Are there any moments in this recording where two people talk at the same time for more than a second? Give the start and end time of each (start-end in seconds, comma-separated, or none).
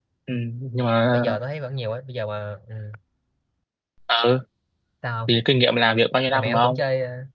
none